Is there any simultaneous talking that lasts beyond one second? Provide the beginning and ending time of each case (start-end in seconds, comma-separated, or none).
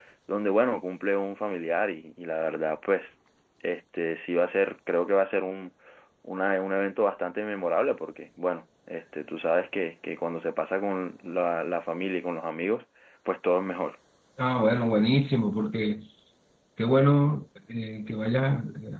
none